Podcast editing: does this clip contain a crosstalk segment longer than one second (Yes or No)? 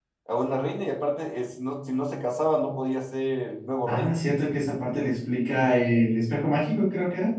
No